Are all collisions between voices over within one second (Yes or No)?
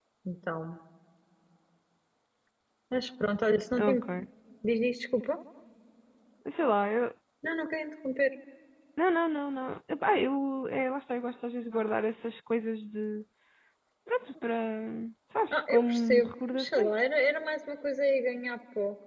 No